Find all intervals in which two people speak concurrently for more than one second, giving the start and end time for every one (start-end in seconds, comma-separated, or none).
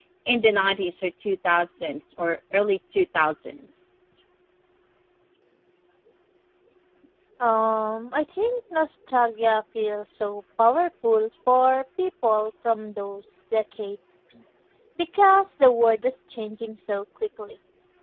none